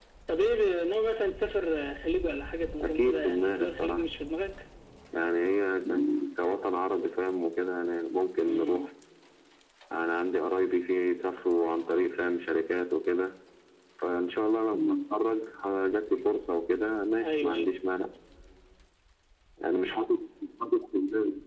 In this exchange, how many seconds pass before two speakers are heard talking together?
3 s

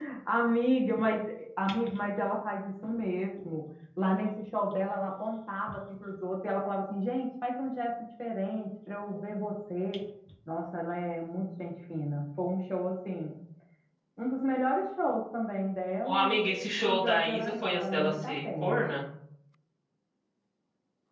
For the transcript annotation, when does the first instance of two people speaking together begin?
16 s

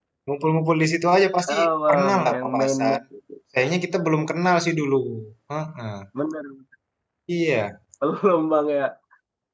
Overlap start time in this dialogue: 1 s

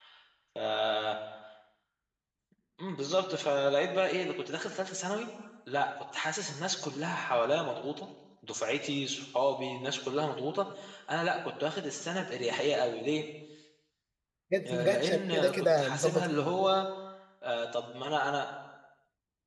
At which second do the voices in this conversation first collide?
15 s

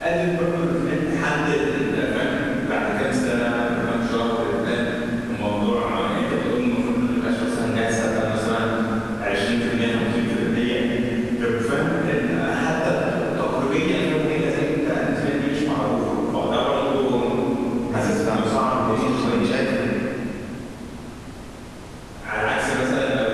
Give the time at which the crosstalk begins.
18 s

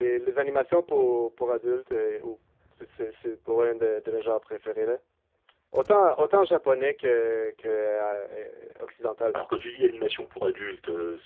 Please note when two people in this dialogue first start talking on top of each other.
none

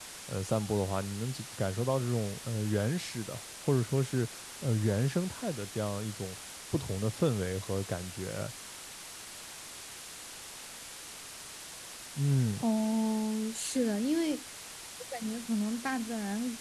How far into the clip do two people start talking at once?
none

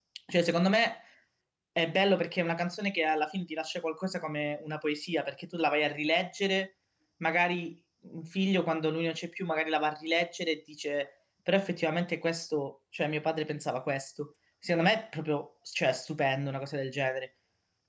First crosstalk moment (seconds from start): none

